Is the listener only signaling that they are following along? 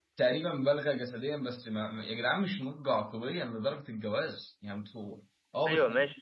No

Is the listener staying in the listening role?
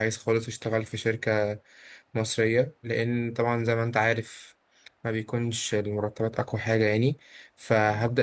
Yes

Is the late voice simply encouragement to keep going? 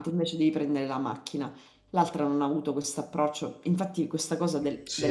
No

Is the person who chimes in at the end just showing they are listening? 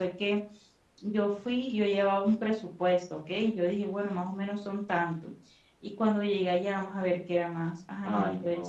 No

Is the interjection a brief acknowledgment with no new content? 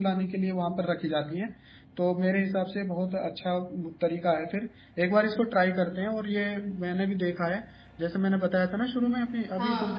Yes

